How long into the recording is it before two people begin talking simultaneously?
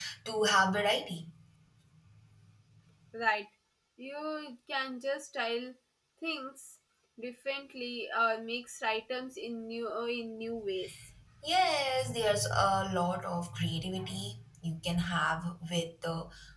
none

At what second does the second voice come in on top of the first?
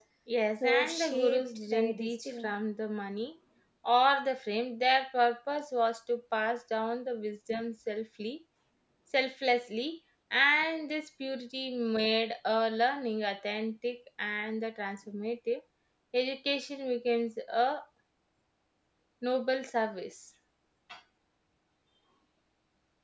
1 s

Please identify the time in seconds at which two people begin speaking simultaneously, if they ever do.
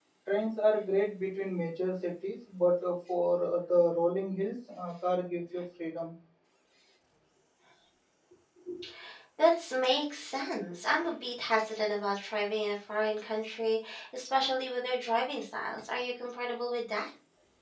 none

